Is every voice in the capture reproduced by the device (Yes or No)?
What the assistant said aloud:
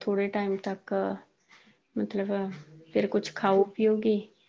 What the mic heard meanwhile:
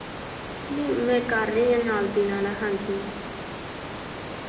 No